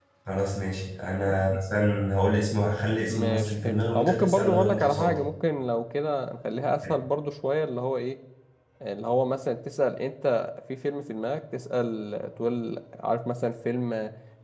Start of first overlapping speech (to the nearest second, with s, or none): 3 s